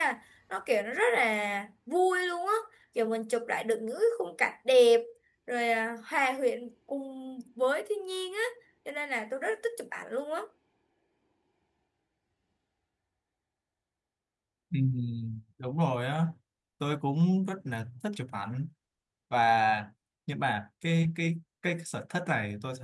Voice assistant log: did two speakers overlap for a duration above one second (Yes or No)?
No